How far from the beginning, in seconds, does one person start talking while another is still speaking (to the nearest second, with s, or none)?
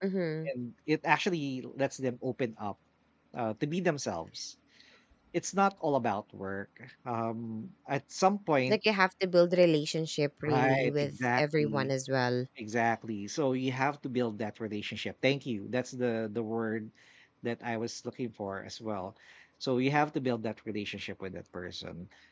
10 s